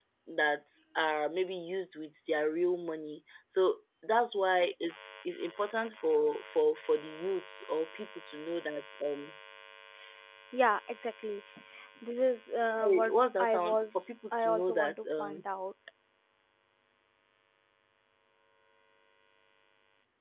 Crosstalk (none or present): present